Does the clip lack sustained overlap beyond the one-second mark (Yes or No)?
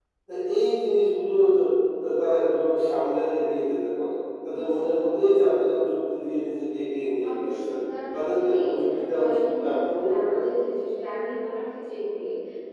No